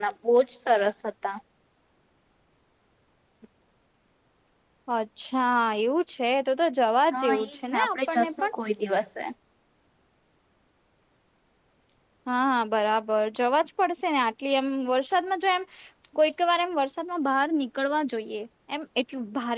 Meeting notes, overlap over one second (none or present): present